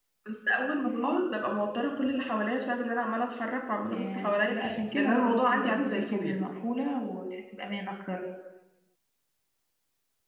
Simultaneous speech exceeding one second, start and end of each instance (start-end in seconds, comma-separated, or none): 3.9-6.4